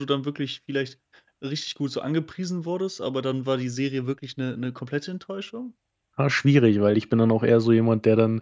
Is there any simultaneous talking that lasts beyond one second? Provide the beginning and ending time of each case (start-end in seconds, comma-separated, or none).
none